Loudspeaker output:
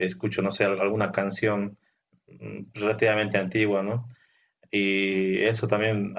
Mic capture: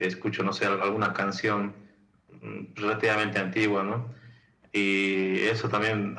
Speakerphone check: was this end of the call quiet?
Yes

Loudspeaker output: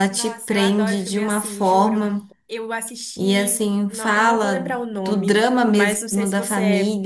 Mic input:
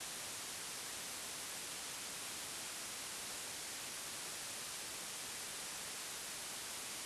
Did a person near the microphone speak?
No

